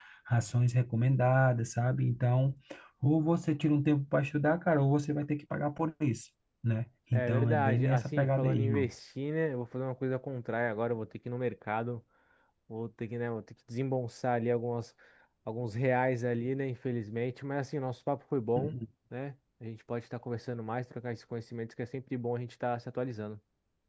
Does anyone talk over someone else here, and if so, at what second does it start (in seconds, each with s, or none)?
7.1 s